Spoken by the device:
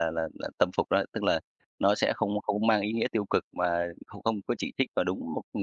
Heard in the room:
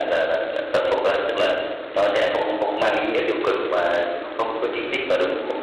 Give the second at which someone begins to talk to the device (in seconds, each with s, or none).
none